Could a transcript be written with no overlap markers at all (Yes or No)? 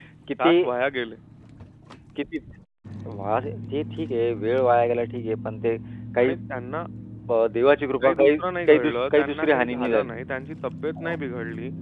No